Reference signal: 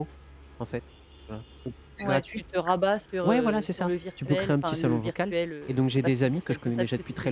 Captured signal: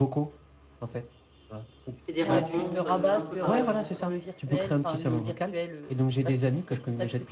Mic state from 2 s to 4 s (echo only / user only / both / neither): both